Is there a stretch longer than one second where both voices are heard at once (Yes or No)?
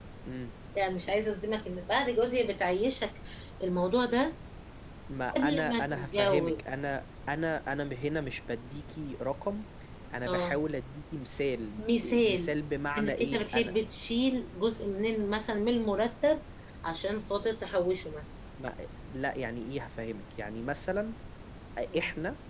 Yes